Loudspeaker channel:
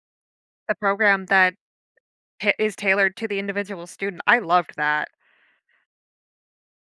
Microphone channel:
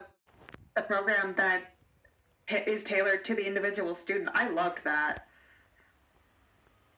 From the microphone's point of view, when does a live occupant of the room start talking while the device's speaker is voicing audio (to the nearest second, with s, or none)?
none